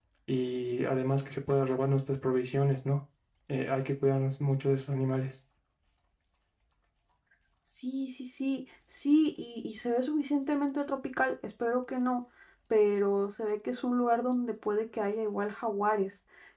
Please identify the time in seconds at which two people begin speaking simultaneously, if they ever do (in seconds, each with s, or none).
none